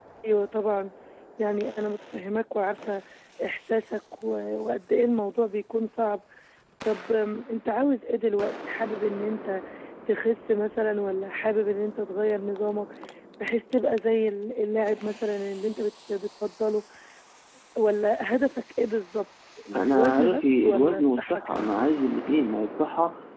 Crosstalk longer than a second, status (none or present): present